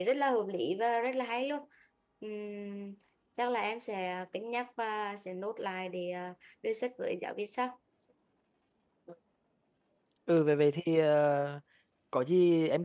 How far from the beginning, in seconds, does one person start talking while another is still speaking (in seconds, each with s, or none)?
none